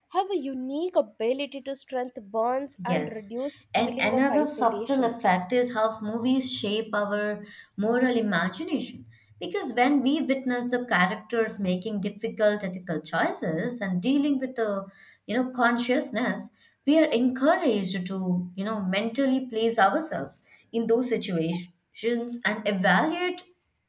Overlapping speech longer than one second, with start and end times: 3.8-5.1

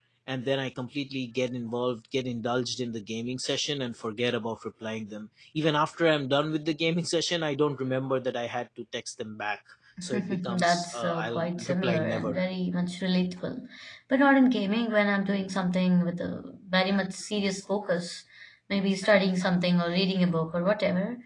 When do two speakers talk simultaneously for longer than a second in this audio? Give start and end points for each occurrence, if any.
10.1-12.4

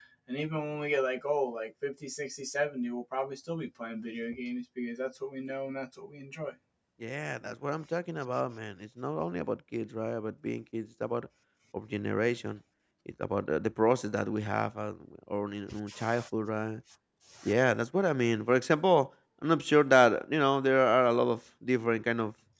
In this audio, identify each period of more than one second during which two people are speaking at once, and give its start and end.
none

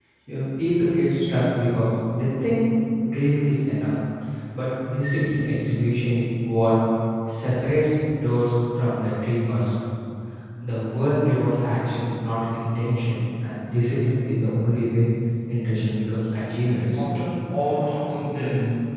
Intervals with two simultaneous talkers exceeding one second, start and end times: none

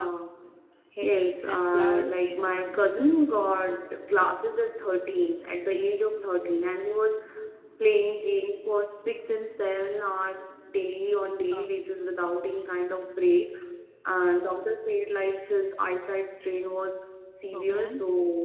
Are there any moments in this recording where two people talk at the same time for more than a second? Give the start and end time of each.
1.0-2.5

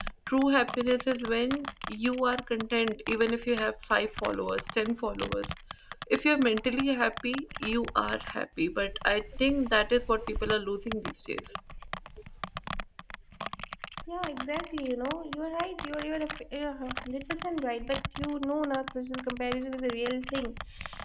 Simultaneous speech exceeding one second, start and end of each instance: none

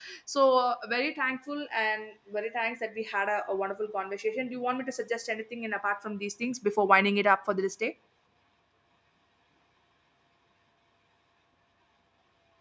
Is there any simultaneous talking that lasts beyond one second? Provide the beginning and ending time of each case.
none

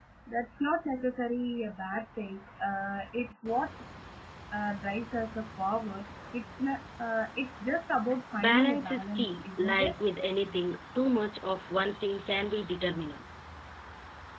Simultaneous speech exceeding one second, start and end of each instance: 8.4-9.9

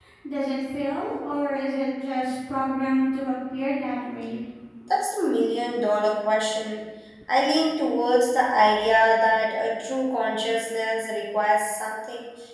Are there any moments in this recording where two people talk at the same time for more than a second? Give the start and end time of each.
none

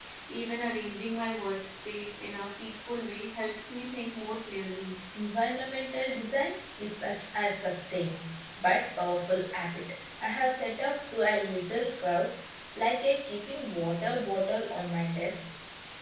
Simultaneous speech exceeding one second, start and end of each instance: none

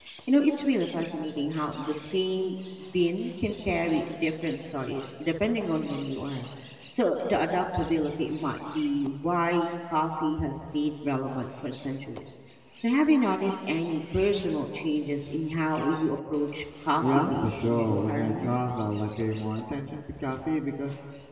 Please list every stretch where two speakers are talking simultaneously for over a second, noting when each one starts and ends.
17.0-18.6

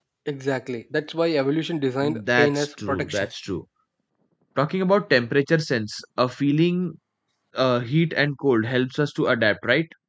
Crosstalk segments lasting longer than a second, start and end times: 2.0-3.3

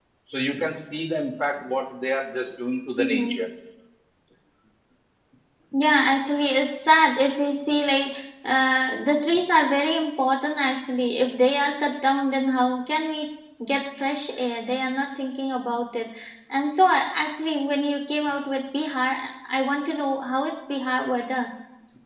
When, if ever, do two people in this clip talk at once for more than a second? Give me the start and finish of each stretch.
none

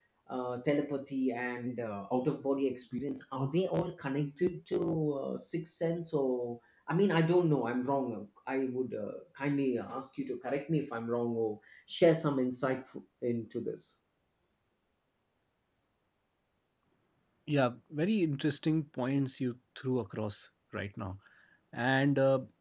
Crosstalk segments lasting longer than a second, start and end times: none

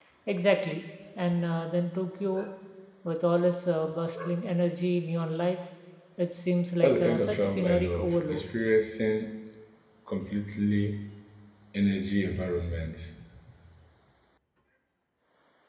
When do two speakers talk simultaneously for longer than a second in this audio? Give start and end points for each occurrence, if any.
6.8-8.5

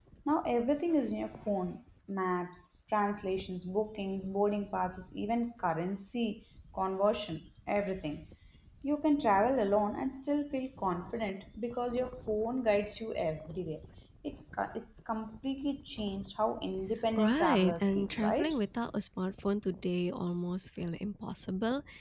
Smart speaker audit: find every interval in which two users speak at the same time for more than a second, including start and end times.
17.2-18.5

